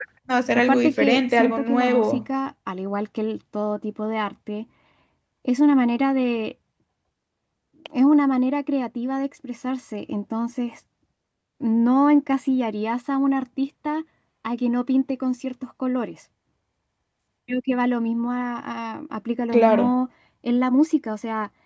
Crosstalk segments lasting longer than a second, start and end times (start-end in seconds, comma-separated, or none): 0.7-2.2